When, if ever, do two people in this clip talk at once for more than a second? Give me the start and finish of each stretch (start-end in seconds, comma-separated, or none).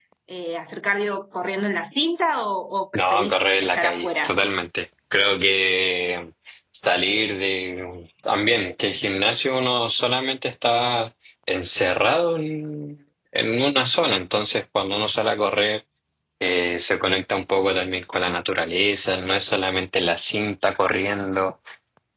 2.9-4.3